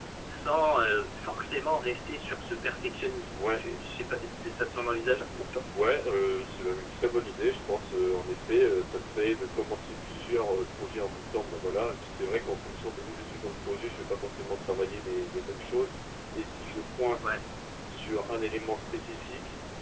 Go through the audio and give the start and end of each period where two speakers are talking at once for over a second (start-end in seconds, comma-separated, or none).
none